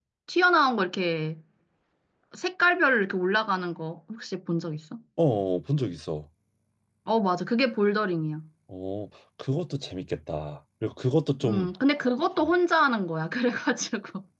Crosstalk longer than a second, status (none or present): none